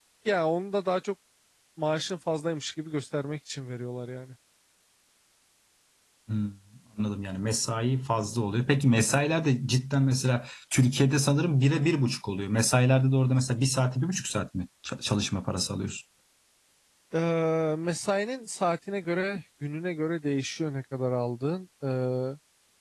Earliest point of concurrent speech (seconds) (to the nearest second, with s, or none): none